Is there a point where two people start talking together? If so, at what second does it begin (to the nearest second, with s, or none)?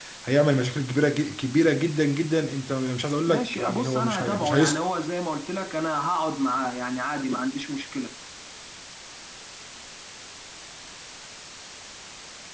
3 s